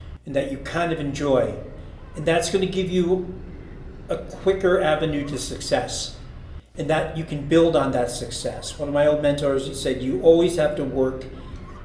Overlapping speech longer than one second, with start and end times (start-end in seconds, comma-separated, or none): none